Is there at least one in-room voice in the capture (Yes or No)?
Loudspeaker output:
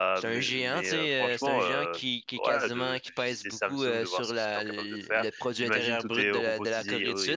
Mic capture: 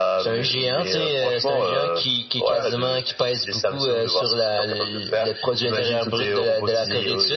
No